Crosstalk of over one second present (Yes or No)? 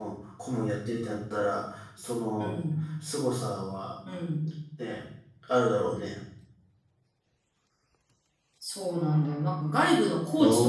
No